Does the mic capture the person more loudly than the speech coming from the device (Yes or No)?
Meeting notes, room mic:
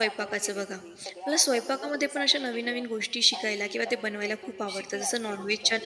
Yes